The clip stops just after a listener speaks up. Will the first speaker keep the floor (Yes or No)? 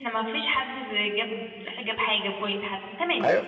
No